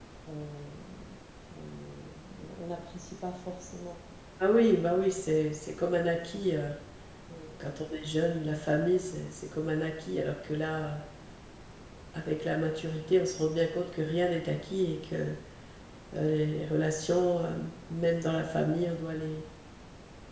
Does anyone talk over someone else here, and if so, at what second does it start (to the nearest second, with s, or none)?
none